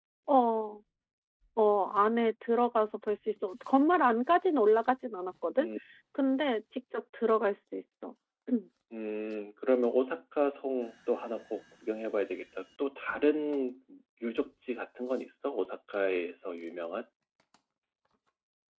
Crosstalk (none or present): none